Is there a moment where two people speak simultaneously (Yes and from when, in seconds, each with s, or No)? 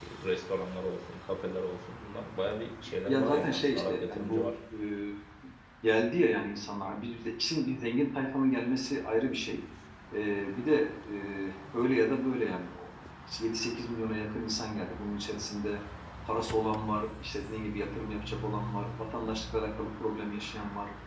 Yes, from 3.1 s